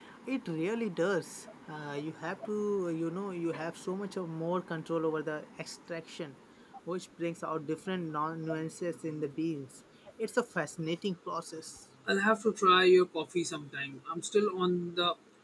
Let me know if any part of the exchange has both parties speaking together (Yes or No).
No